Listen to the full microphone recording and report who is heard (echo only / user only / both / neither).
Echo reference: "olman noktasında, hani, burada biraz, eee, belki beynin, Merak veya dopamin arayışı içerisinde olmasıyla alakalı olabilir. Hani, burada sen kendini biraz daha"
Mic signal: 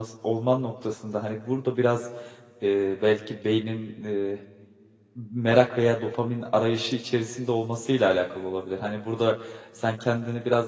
echo only